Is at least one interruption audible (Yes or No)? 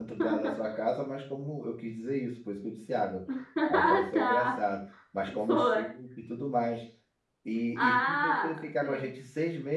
Yes